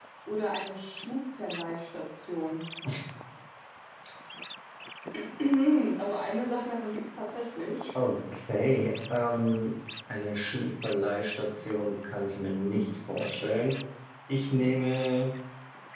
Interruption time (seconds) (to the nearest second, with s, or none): none